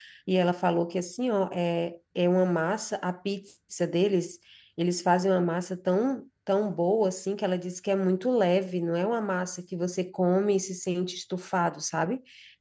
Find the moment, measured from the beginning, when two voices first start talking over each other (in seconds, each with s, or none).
none